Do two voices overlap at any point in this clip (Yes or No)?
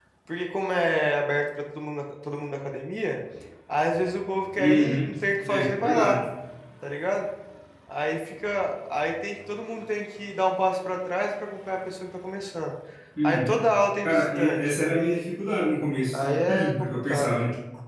Yes